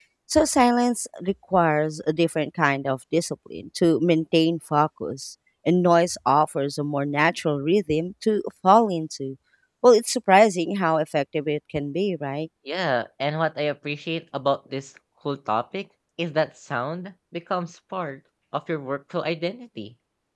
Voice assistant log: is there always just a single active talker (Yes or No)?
Yes